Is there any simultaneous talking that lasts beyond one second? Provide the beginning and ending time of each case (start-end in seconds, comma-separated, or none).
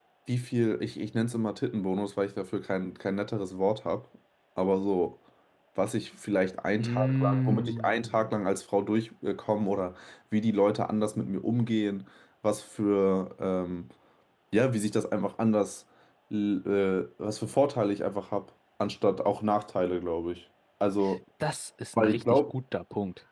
6.8-8.1